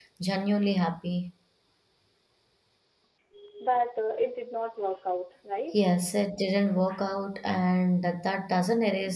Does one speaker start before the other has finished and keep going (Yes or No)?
No